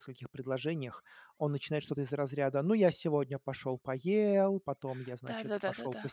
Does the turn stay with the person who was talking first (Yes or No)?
No